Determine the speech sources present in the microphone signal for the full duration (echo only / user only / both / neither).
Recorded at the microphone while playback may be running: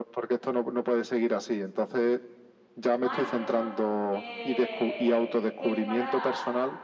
both